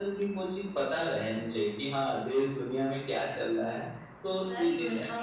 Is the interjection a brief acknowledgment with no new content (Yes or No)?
No